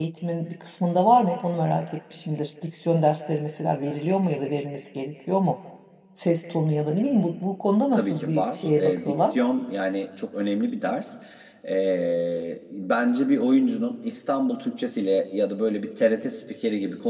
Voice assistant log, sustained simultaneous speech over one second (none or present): present